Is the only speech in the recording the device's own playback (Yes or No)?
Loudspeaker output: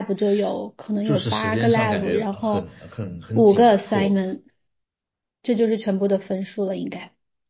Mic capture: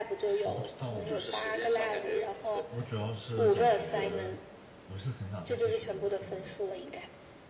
No